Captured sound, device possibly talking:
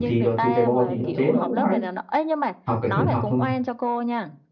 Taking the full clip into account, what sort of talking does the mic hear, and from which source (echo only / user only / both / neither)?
both